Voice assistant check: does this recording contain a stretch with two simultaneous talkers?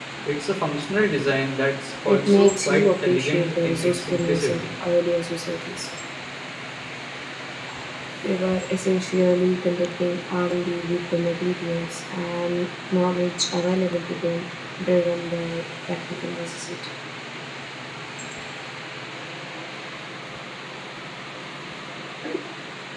Yes, from 2.0 s

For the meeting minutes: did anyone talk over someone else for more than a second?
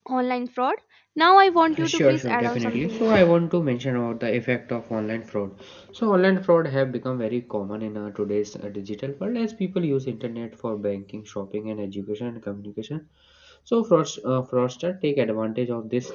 Yes, from 1.8 s

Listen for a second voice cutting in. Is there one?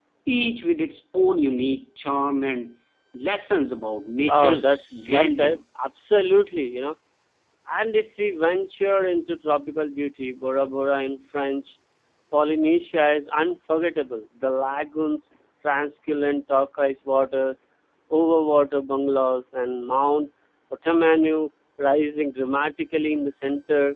Yes, from 4.3 s

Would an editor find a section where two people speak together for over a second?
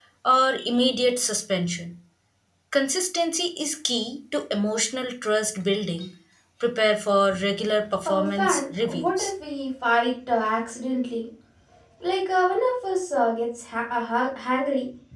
Yes, from 8.0 s

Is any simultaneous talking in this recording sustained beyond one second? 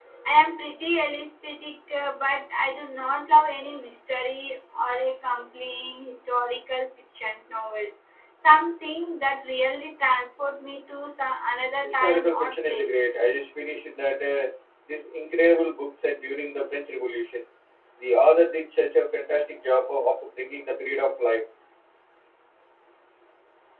Yes, from 11.8 s

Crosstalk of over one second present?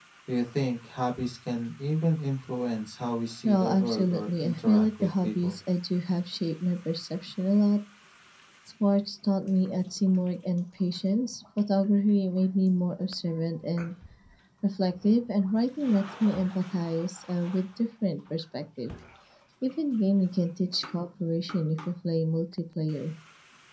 Yes, from 3.4 s

